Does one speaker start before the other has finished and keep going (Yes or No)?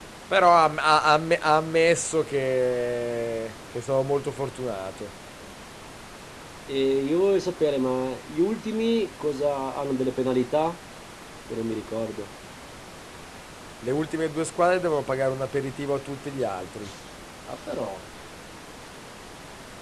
No